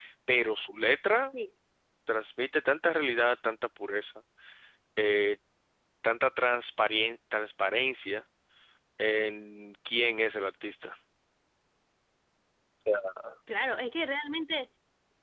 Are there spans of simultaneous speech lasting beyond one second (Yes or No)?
No